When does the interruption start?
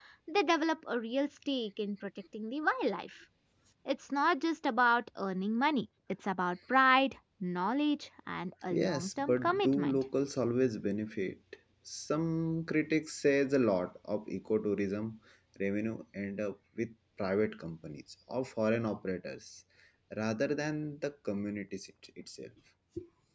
8.7 s

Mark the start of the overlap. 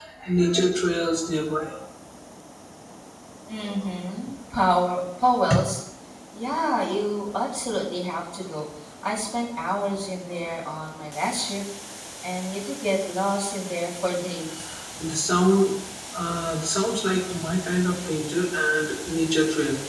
none

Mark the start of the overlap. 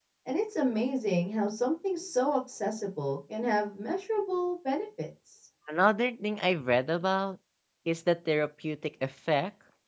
none

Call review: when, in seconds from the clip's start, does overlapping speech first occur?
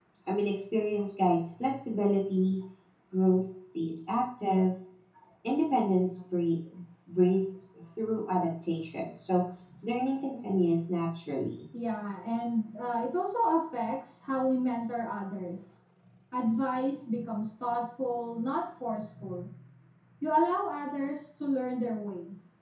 none

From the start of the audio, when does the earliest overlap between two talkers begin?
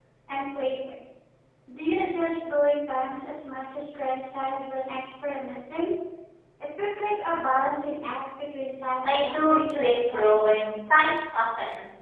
9.0 s

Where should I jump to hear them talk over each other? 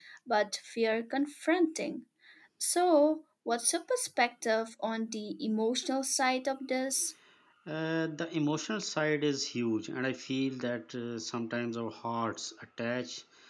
none

